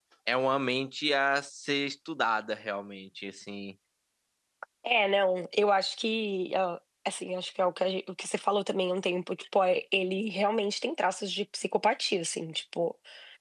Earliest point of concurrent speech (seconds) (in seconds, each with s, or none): none